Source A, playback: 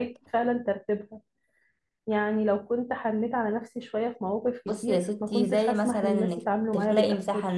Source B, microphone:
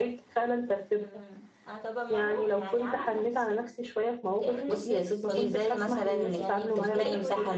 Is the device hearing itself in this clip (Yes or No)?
Yes